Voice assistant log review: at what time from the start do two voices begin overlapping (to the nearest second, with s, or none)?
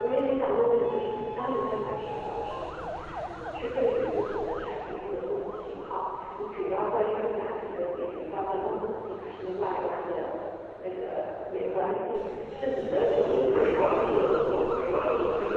13 s